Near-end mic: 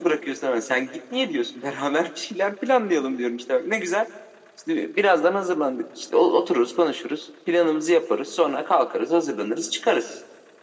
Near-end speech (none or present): none